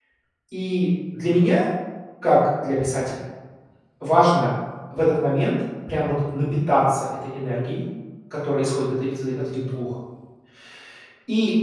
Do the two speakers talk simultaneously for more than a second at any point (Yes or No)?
No